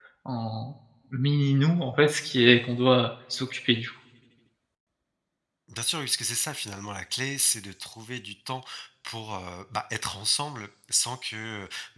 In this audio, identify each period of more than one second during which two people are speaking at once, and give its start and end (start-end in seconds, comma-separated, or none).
none